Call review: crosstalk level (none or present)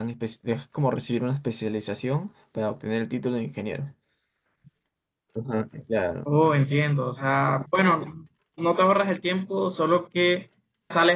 none